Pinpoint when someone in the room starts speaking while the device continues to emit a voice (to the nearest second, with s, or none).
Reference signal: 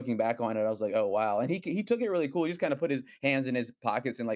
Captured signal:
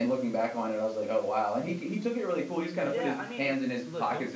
3 s